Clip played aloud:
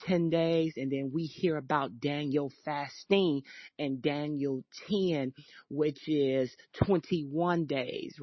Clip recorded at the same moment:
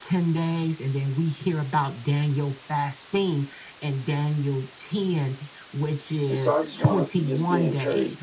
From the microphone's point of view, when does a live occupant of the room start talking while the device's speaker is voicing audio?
6.3 s

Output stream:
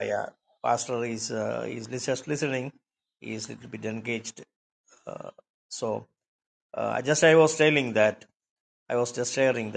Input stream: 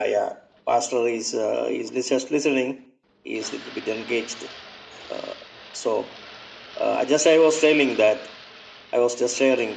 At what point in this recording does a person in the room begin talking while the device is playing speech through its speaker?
none

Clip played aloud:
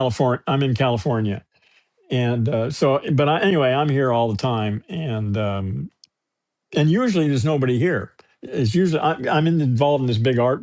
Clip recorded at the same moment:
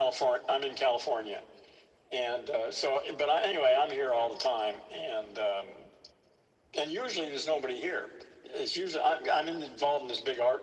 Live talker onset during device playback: none

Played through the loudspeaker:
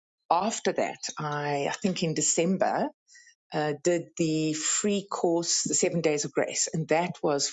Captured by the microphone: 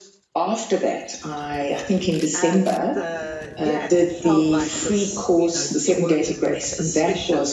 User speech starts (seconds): 2.3 s

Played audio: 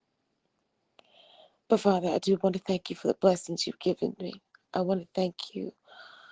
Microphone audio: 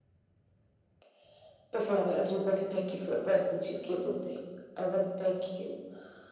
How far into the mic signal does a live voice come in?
none

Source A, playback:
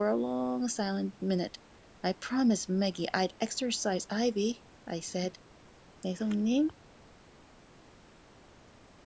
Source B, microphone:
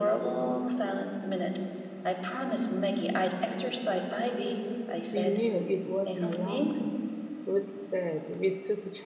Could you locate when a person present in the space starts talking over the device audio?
5.1 s

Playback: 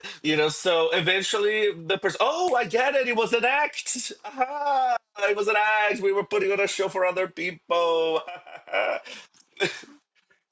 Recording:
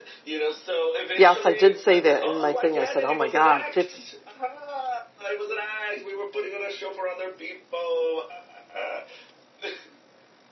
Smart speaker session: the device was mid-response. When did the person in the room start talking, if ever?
1.1 s

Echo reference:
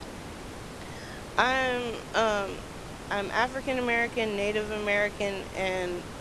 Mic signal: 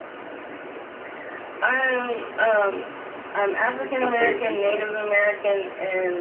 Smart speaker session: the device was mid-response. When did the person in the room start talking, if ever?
3.6 s

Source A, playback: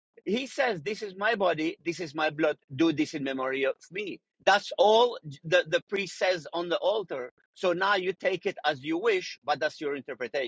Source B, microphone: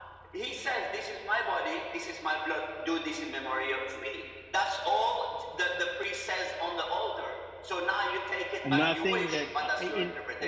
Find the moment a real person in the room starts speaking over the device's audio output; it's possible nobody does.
8.6 s

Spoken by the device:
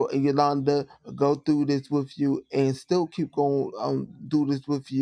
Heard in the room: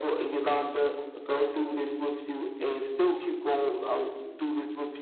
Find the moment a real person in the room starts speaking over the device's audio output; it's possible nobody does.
none

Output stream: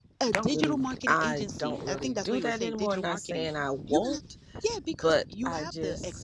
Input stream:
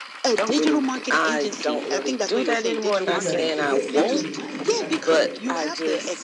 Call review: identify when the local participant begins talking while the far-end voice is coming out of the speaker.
3.0 s

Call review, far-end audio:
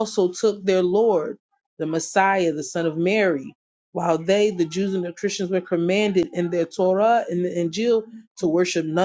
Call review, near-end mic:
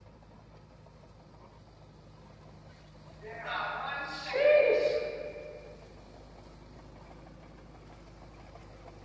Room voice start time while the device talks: 3.2 s

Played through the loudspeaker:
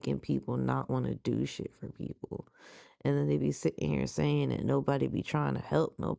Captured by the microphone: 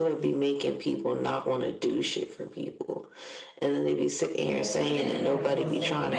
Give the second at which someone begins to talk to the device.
4.5 s

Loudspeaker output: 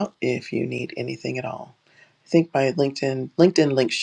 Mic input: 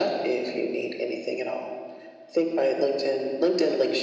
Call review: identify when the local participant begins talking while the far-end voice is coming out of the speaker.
none

